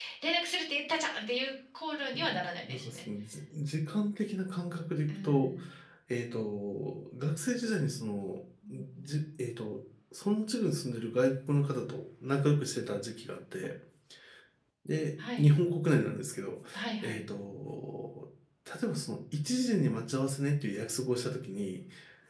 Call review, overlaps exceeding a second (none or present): none